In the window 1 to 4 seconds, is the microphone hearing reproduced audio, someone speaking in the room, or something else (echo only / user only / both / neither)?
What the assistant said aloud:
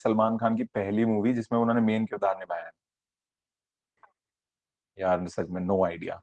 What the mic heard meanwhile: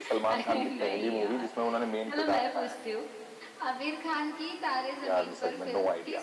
both